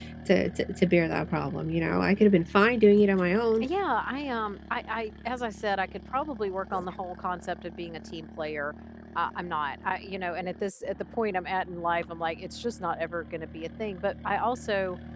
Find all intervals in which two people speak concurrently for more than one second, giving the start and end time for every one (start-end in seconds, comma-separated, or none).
none